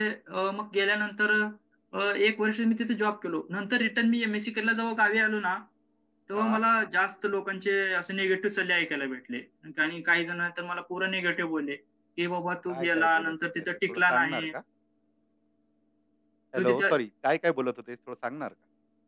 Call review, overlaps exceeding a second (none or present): present